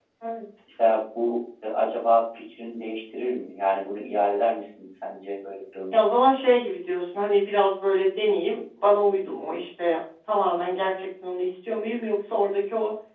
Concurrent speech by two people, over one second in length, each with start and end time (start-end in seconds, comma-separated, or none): none